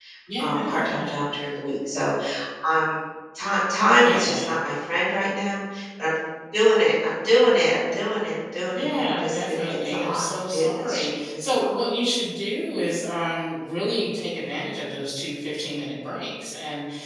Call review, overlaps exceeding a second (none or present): present